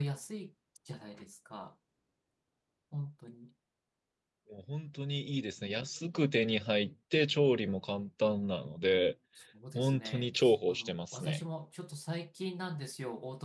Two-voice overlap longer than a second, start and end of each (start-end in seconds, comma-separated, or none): 9.8-11.4